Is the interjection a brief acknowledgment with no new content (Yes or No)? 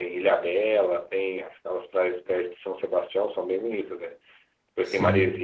Yes